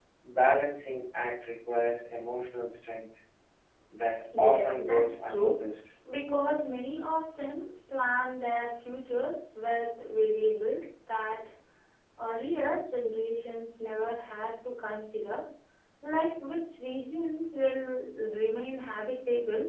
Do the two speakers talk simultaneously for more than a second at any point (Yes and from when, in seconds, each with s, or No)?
Yes, from 4.4 s